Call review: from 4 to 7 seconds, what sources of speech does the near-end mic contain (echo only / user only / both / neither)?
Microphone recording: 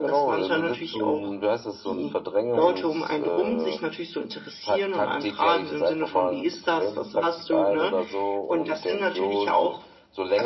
echo only